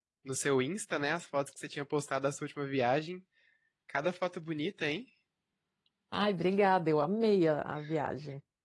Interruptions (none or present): none